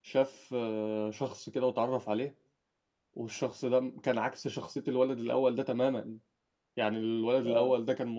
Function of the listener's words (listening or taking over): listening